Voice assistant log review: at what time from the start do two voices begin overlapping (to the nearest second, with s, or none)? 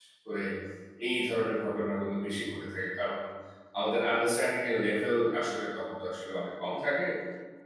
none